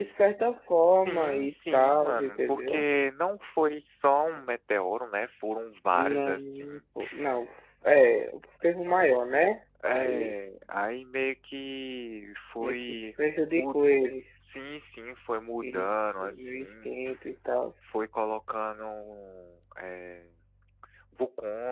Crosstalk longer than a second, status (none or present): present